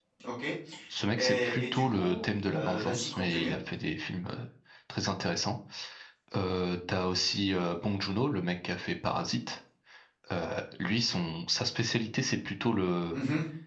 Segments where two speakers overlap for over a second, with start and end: 1.2-3.5

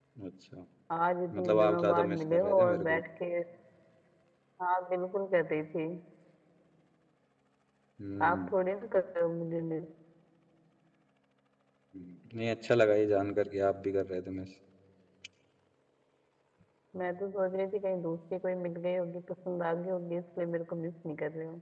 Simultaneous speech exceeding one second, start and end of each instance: 1.3-3.0

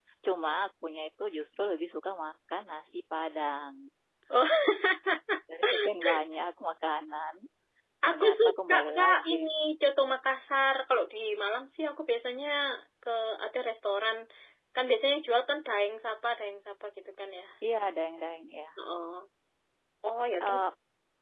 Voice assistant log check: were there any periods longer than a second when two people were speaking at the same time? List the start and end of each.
8.0-9.3

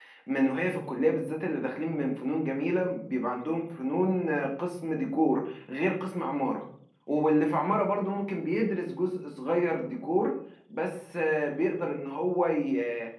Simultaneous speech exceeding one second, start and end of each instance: none

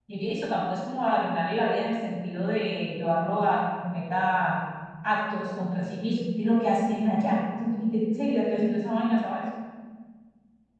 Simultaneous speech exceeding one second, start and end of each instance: none

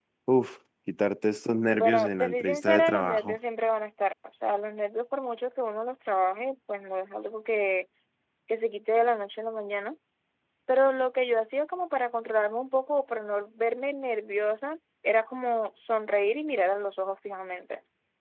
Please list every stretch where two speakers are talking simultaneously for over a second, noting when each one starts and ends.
1.7-3.4

